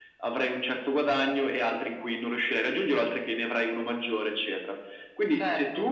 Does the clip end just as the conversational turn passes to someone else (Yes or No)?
No